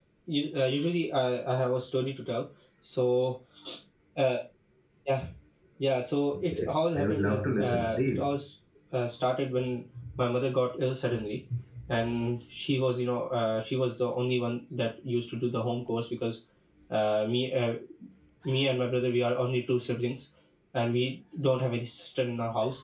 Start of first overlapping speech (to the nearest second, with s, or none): 6 s